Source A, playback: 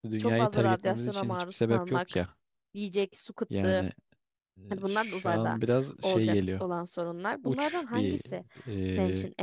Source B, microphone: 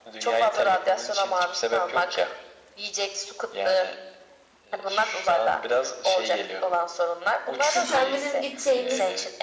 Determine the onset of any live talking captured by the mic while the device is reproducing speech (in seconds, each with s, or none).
7.6 s